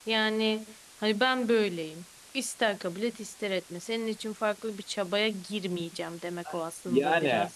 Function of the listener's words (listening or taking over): taking over